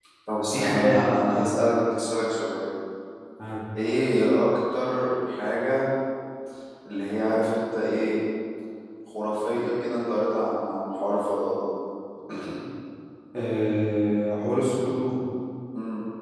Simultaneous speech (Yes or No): Yes